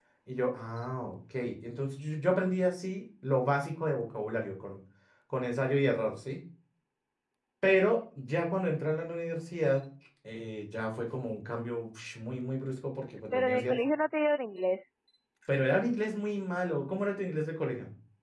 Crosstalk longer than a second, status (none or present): none